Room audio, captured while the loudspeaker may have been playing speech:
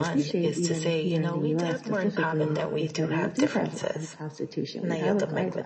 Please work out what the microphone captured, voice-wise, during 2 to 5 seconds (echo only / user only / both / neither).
both